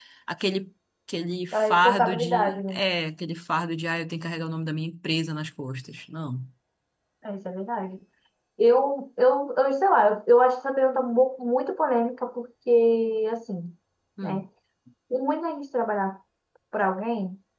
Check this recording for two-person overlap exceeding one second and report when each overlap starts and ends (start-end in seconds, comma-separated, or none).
1.5-2.8